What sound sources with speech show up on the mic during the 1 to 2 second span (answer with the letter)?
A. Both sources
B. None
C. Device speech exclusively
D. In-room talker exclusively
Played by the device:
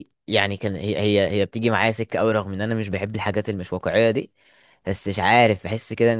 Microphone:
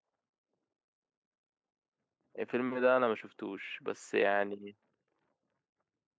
B